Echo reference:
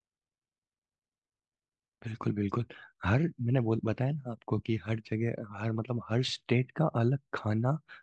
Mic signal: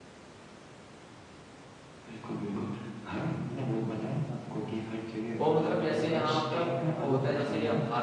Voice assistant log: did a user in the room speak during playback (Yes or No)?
Yes